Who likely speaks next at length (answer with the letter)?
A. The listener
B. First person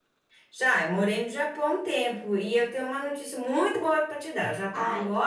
B